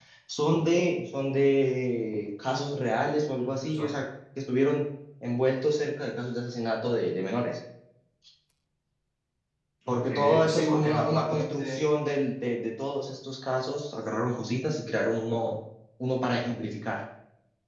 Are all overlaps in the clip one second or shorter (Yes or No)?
No